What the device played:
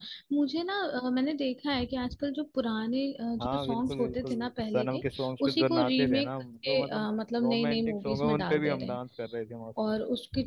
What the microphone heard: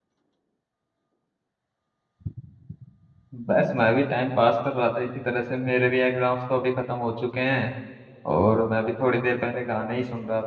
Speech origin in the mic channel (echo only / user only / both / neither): user only